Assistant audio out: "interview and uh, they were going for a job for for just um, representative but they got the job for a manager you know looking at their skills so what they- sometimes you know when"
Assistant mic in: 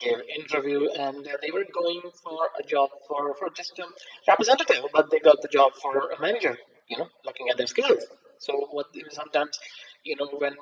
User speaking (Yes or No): No